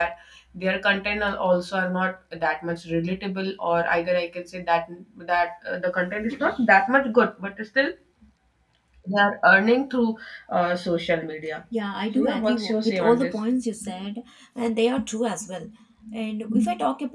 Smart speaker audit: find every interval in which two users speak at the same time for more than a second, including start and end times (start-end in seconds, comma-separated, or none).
12.2-13.4